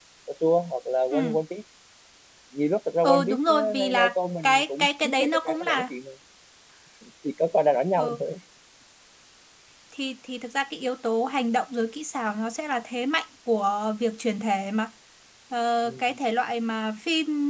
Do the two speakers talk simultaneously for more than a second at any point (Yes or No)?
Yes